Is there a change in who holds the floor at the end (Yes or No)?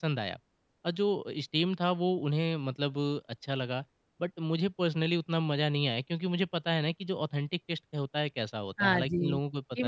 Yes